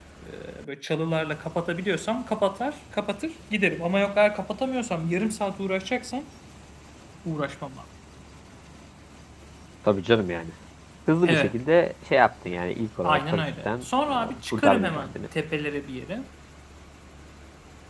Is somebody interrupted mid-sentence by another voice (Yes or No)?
Yes